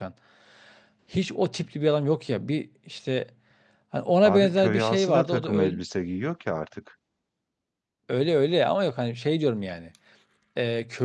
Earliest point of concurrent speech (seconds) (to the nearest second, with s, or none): 4 s